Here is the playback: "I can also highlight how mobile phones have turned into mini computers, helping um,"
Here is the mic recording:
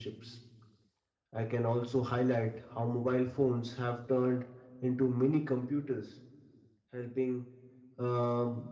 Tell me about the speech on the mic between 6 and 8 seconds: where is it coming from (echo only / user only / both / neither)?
echo only